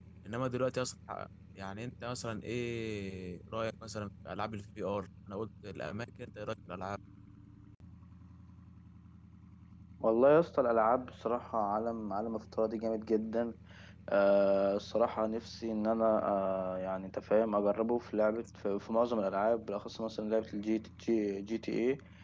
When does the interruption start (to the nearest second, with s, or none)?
none